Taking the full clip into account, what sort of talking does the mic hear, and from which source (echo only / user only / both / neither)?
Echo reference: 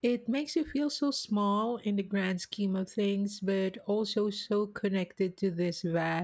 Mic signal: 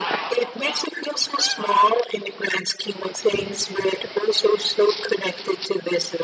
echo only